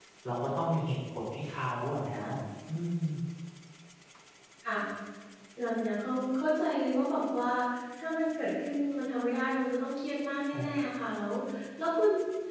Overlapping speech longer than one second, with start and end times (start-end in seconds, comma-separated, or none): none